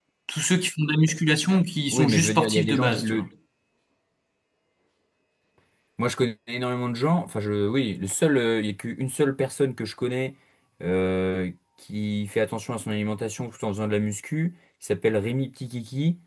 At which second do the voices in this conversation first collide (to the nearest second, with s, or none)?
2 s